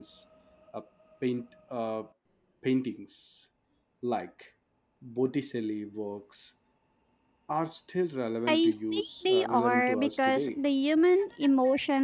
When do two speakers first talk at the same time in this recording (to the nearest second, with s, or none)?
8 s